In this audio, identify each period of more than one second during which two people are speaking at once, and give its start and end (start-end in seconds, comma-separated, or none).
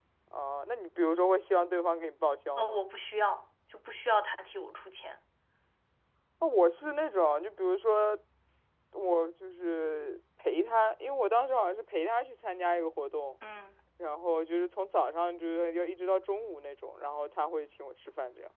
none